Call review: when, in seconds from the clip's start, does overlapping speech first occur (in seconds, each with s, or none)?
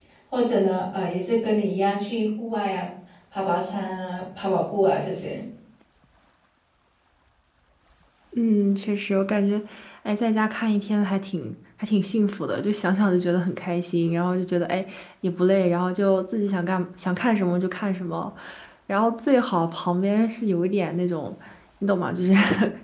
none